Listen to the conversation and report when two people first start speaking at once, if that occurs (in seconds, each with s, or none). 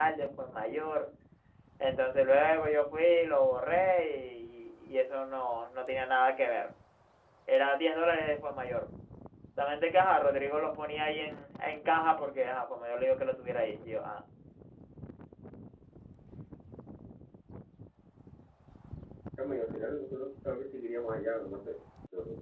none